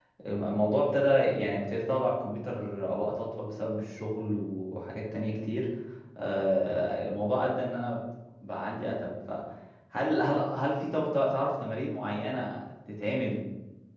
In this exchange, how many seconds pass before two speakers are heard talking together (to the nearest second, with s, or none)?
none